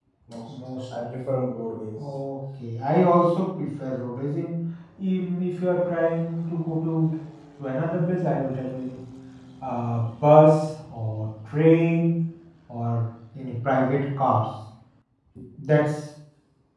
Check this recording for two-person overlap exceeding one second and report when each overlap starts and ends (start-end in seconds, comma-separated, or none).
none